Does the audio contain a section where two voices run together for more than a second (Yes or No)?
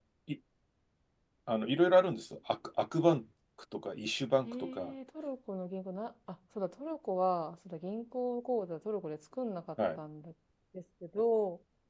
No